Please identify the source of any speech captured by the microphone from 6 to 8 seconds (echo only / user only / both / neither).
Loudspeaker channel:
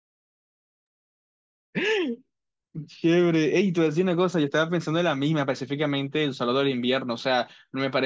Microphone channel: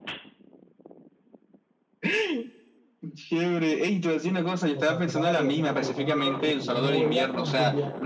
both